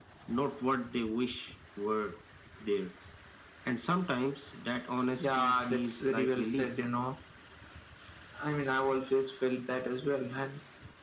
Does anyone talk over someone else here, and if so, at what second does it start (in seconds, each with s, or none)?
5.2 s